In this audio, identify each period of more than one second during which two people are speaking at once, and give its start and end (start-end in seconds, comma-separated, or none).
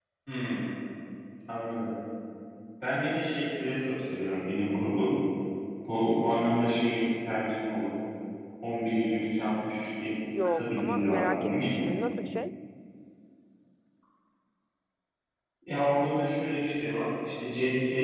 10.4-12.0